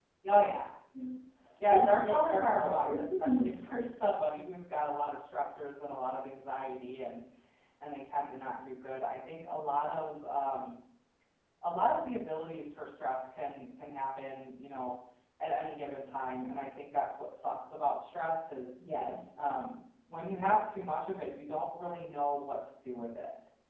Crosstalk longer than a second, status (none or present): present